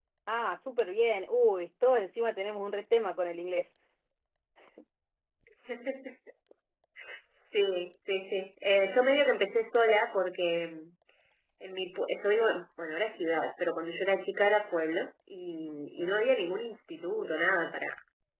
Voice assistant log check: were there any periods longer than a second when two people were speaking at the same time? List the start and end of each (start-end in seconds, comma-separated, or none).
none